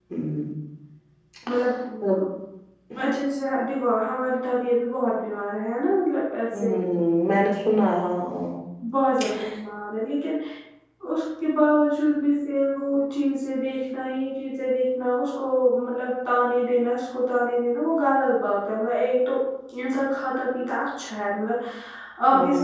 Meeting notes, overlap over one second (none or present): none